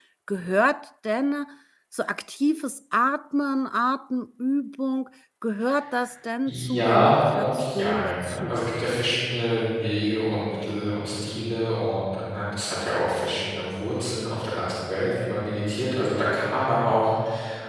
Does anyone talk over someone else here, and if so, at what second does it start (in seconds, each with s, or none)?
6.5 s